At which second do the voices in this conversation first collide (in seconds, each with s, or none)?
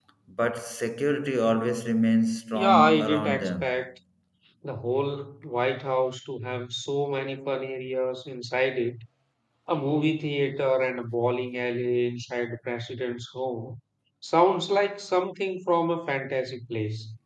2.5 s